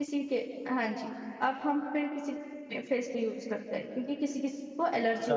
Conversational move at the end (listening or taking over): taking over